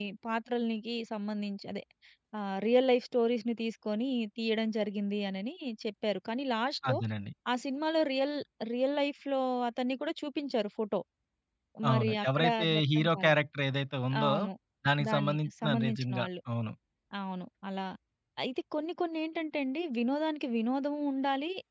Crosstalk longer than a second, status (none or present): present